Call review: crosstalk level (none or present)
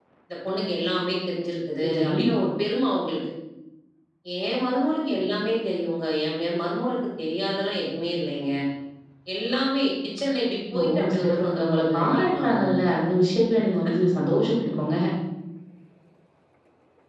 present